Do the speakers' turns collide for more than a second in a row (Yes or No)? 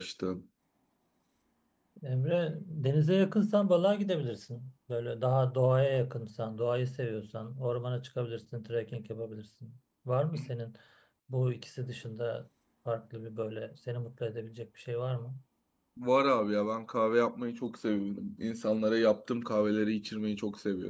No